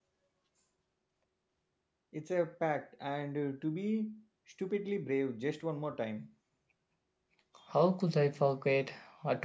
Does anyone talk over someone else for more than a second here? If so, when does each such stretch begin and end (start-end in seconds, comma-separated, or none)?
none